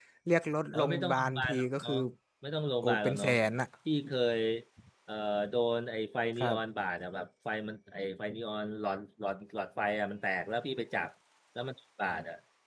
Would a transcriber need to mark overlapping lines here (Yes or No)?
Yes